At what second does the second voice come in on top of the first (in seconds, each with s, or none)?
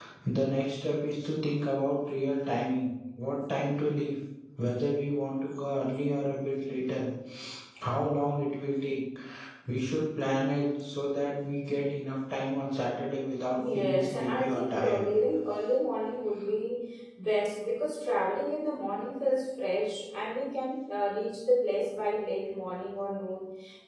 13.6 s